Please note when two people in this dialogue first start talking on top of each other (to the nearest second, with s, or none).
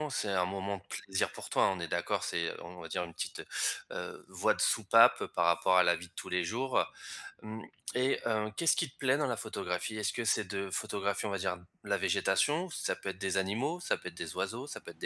none